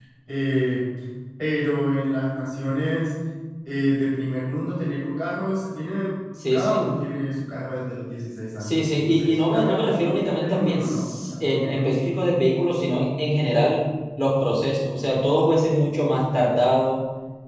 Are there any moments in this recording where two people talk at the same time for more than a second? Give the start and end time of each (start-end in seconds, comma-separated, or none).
8.6-11.9